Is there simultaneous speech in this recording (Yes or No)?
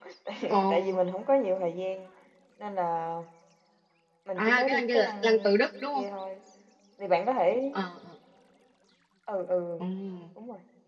Yes